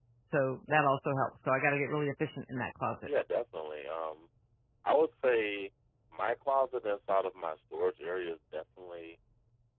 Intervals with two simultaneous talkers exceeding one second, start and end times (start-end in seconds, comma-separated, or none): none